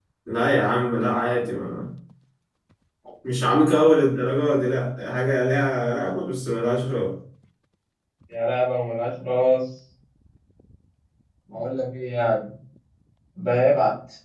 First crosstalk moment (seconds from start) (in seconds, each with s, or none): none